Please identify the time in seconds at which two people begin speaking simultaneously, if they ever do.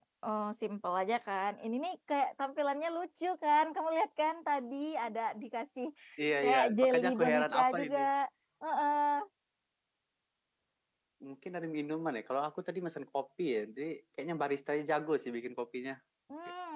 6.4 s

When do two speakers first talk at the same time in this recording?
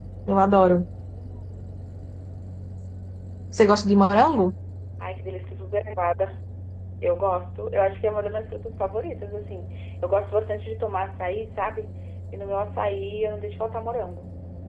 none

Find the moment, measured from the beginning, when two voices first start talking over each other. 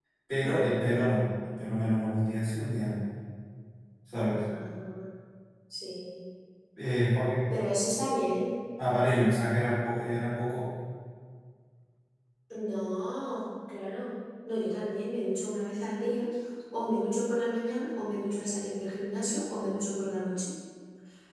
none

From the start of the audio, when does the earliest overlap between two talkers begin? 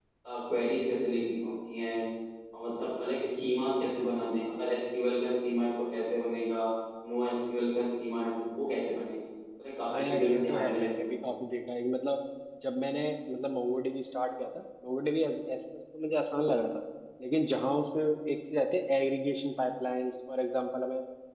9.9 s

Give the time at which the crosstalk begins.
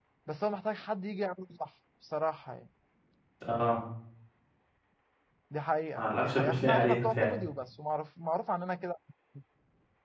6.0 s

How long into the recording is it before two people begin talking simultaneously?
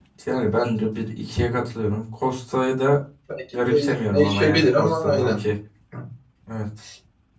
3.7 s

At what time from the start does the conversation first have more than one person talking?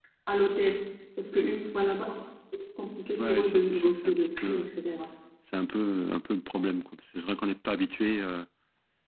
3.2 s

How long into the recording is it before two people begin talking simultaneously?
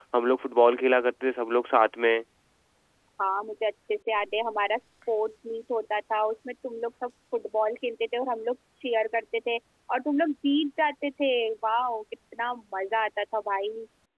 none

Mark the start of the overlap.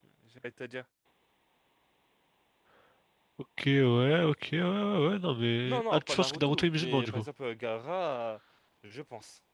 5.6 s

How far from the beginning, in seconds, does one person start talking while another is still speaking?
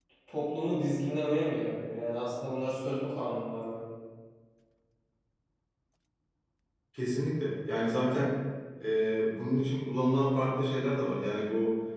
none

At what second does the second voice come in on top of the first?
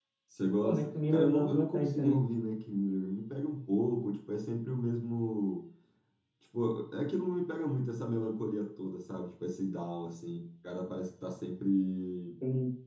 0.6 s

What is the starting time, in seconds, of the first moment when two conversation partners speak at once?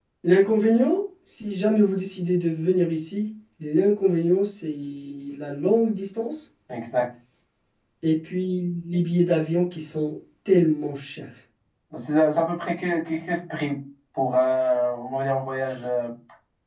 none

